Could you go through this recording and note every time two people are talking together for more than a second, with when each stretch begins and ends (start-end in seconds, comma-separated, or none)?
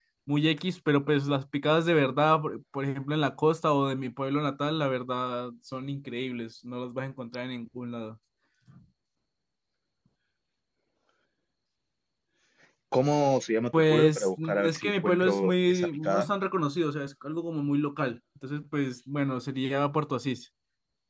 13.7-16.3